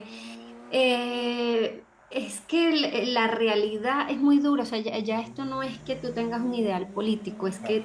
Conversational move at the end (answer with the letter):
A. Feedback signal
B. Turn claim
A